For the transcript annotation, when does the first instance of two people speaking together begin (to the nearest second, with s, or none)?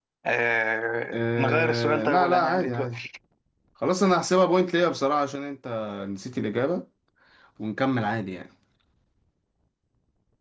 1 s